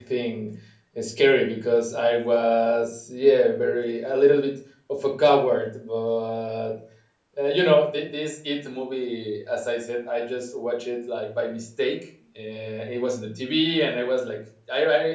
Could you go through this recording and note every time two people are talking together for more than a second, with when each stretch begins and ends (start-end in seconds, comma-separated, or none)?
none